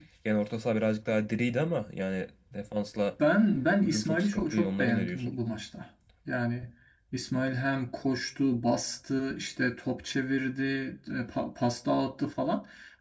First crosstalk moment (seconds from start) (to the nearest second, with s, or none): 4 s